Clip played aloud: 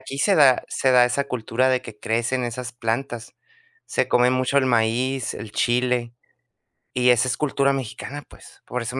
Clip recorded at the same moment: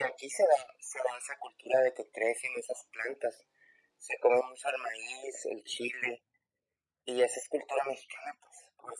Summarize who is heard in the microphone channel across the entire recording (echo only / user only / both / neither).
echo only